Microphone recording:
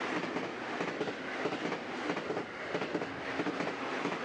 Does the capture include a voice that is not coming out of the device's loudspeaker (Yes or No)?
No